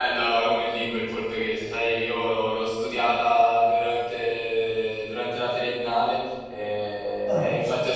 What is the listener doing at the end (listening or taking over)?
listening